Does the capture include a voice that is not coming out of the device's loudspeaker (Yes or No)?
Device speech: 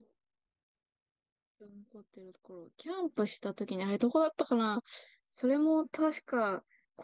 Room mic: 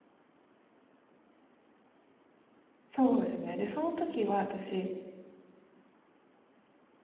Yes